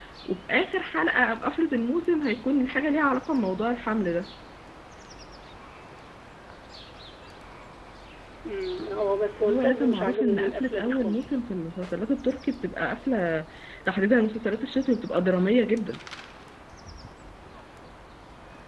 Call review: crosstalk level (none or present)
present